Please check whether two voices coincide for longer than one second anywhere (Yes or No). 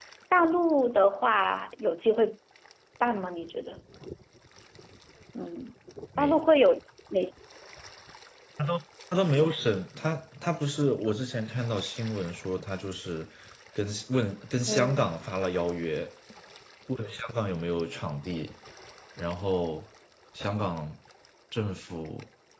No